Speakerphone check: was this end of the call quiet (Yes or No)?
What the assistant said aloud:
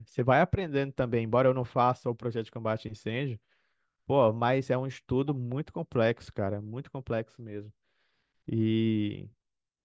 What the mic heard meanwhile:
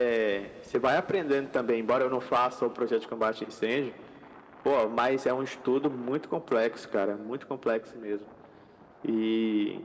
Yes